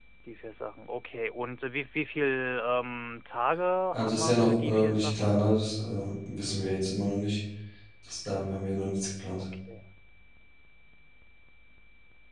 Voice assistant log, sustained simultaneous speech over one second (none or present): present